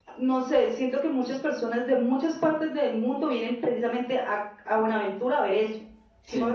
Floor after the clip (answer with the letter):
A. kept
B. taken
A